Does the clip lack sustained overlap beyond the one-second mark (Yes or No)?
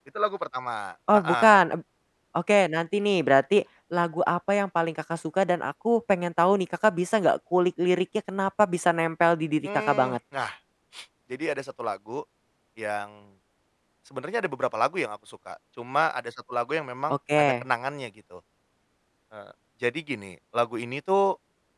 Yes